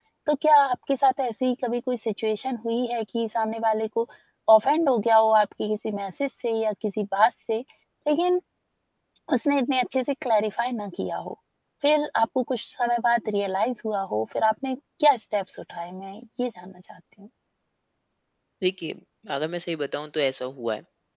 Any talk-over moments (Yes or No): No